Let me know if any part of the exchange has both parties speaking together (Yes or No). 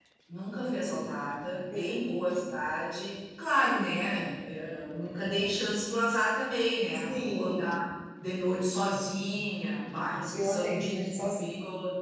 Yes